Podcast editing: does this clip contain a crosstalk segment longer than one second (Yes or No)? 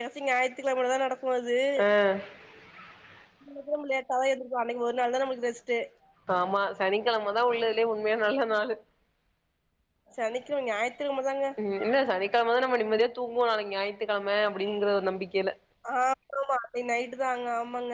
No